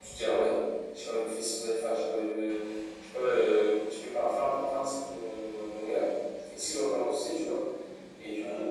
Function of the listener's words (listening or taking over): listening